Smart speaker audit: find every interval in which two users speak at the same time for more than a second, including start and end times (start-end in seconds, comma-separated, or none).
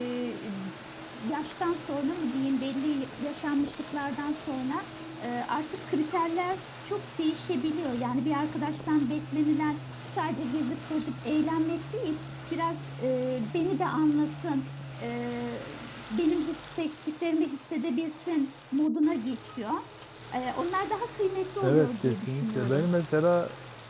21.6-22.9